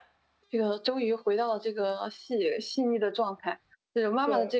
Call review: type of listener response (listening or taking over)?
listening